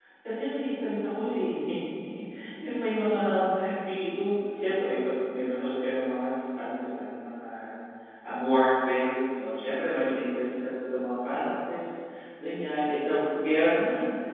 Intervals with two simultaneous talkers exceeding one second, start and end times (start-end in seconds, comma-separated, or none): none